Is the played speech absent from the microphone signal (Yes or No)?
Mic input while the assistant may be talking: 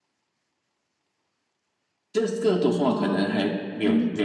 No